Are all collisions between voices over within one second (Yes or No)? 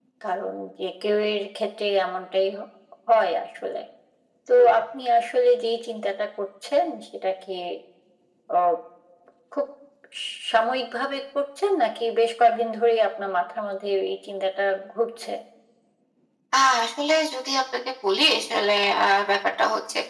Yes